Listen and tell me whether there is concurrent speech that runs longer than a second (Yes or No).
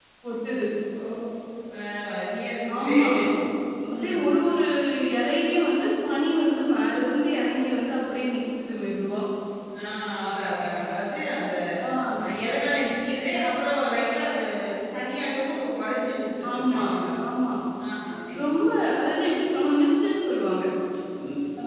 No